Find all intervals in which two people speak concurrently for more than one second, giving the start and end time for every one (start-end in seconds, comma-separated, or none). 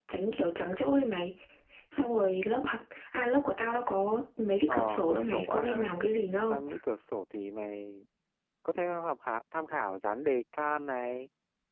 4.7-5.9